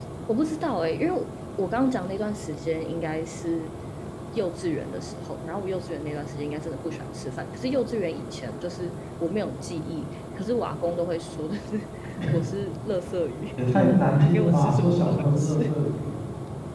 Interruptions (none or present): present